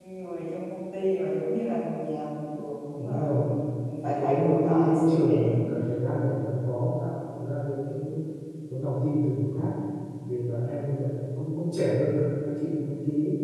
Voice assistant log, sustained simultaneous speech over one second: present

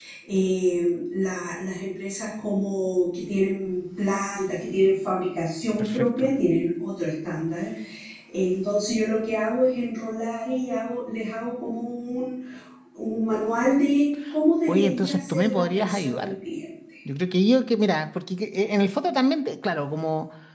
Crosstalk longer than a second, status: present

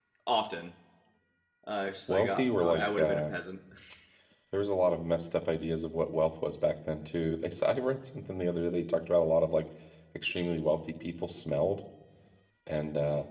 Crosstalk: present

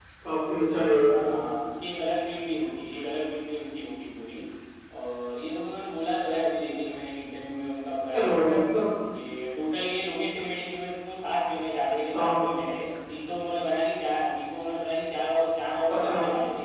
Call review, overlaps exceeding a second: none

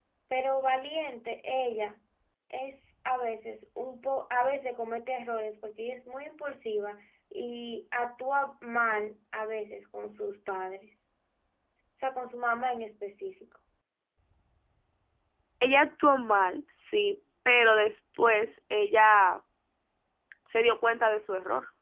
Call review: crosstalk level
none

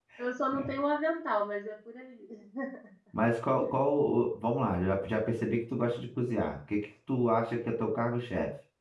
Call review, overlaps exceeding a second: none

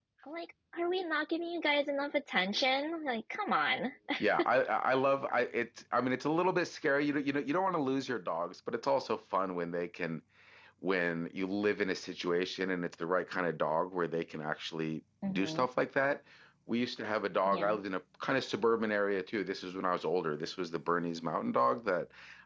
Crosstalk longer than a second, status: none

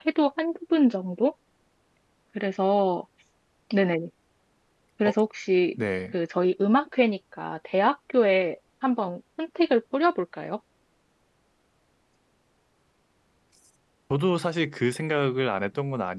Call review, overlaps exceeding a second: none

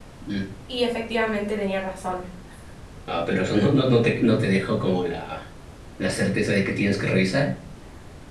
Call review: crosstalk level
none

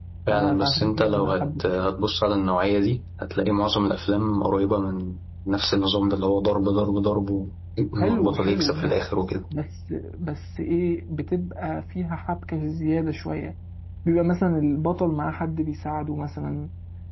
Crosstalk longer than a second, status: present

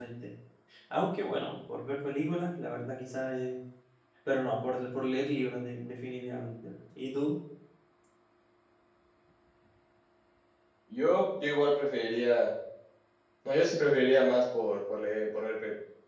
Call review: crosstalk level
none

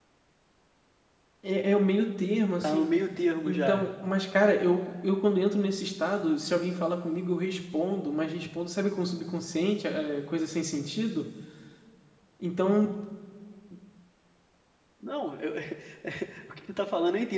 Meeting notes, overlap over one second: none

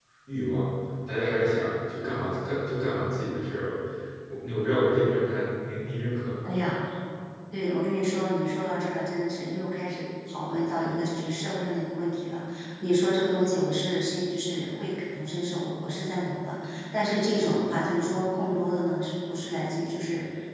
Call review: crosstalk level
none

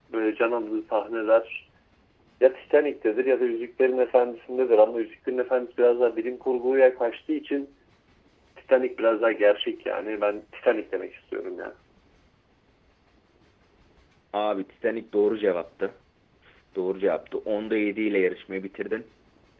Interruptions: none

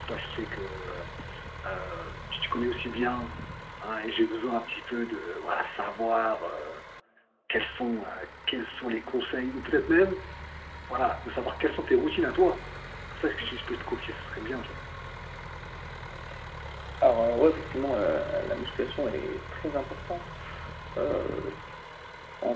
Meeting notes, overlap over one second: none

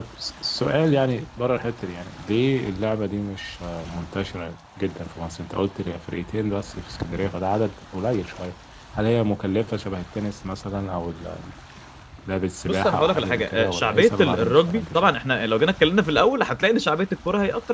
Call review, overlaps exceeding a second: present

